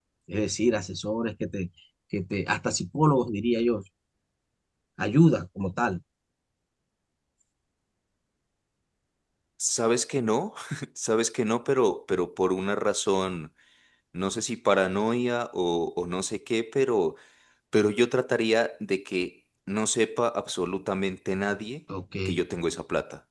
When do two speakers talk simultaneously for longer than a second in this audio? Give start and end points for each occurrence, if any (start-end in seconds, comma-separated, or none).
none